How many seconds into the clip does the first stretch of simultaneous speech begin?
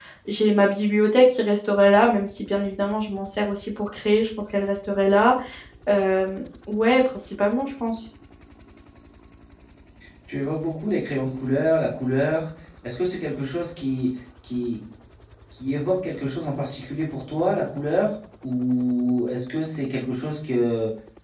none

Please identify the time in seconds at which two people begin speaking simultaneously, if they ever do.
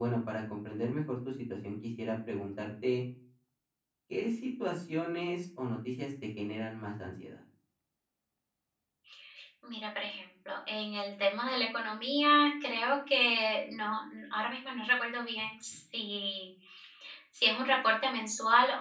none

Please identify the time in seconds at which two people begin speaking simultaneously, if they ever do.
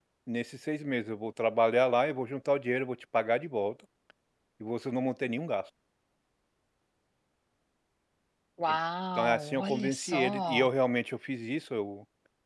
9 s

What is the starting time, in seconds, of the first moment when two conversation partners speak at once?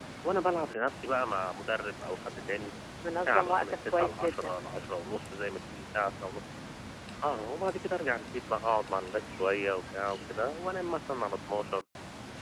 3 s

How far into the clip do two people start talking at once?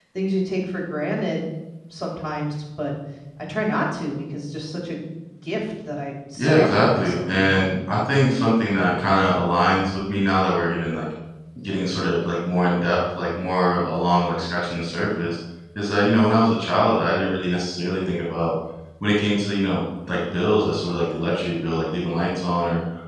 6 s

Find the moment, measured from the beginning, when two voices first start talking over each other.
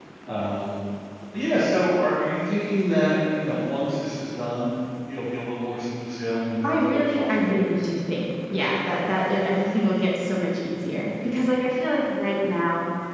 7 s

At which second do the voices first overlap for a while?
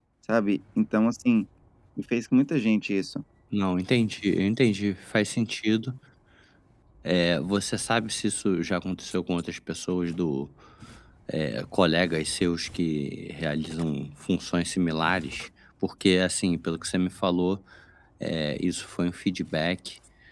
none

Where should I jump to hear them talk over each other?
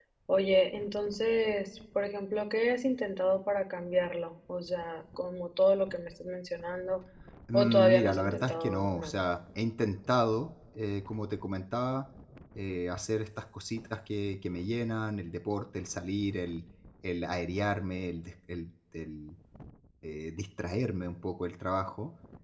8 s

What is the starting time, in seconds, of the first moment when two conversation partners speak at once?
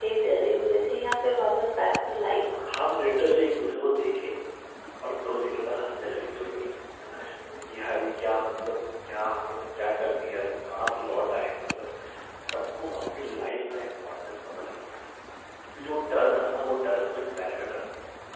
none

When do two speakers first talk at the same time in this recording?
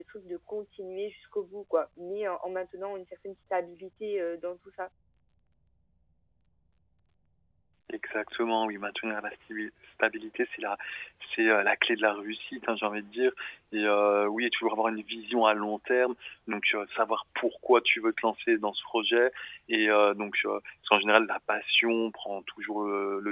none

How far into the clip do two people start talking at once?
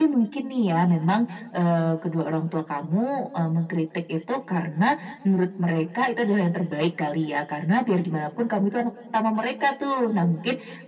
none

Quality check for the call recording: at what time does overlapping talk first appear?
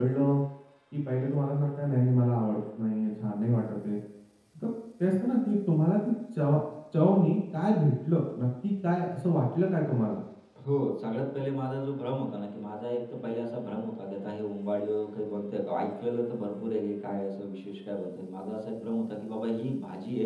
none

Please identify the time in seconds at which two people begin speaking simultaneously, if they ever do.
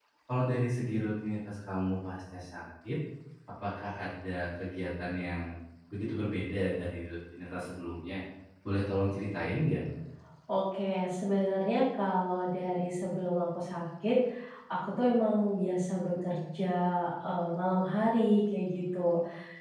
none

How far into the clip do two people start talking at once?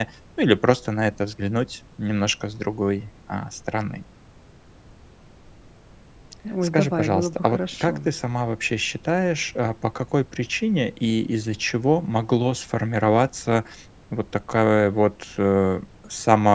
7 s

